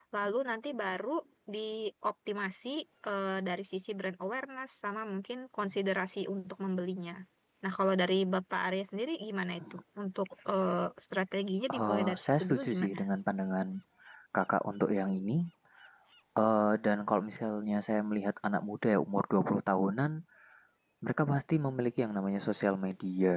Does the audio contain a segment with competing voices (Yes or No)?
Yes